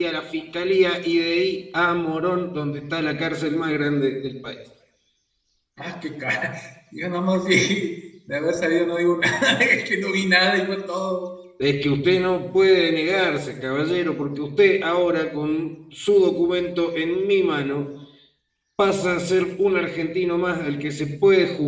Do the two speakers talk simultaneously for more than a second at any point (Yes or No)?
No